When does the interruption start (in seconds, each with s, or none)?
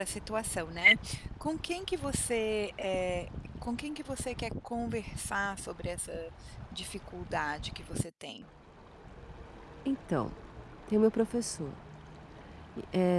none